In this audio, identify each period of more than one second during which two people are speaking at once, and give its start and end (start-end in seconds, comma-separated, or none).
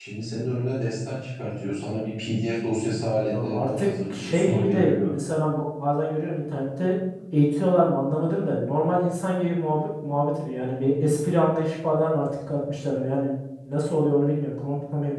3.3-5.2